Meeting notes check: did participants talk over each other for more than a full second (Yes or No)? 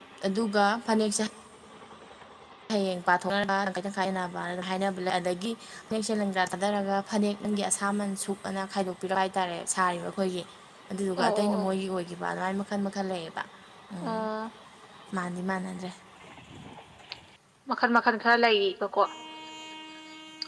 No